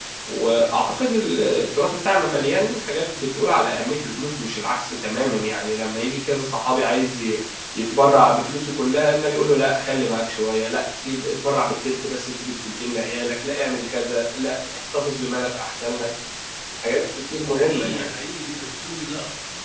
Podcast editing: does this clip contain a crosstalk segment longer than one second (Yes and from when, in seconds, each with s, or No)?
No